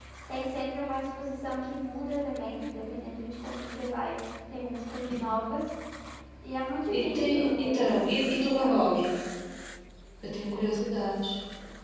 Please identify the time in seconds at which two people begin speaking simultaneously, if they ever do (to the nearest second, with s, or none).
7 s